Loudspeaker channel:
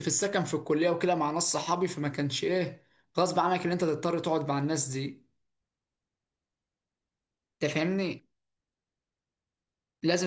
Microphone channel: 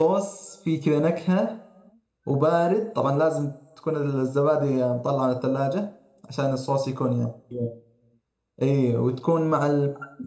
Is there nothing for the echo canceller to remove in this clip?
Yes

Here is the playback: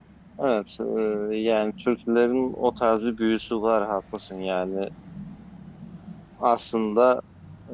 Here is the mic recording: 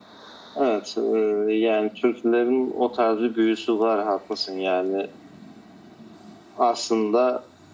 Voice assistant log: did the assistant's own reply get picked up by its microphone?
Yes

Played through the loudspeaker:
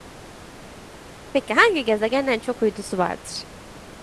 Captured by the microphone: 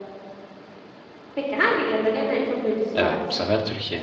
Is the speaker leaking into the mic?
Yes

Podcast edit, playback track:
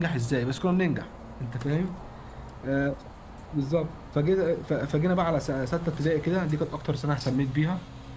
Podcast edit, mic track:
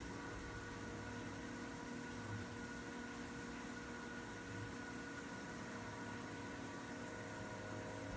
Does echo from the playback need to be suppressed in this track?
No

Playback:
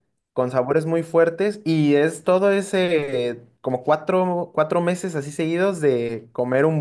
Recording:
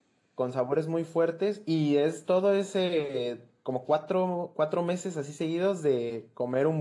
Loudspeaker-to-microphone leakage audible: Yes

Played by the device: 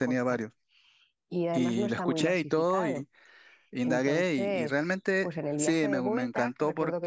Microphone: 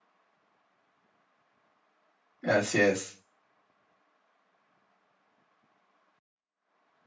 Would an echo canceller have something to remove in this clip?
No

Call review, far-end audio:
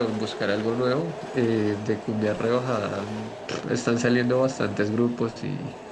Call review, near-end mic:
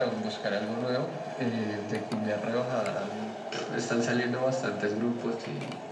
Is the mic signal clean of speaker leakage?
No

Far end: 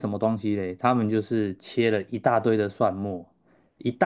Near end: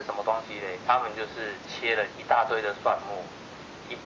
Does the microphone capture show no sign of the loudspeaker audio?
No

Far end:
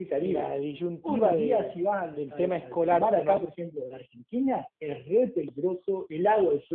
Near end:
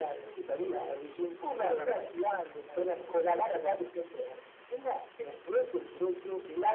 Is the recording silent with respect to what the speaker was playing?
No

